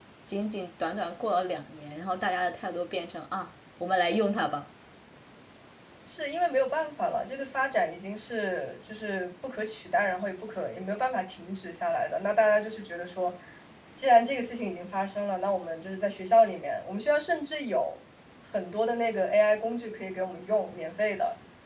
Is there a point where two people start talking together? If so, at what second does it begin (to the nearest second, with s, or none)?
none